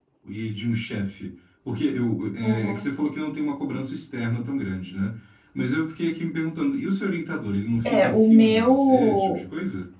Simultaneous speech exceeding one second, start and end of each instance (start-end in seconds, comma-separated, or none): 7.8-9.4